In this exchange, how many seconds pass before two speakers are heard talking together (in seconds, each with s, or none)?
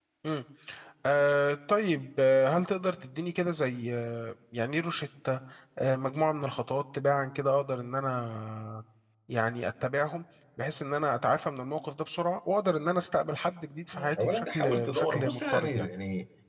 13.9 s